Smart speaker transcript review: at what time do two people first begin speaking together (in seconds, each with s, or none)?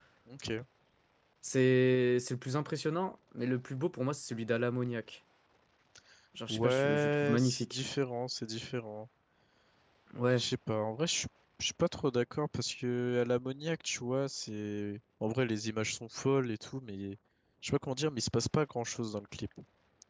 6.5 s